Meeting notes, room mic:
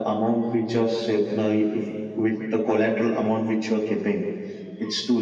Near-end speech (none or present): none